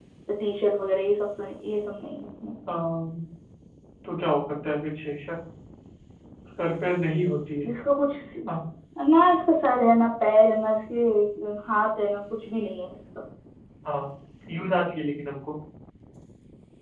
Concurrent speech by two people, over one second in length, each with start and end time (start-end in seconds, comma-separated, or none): none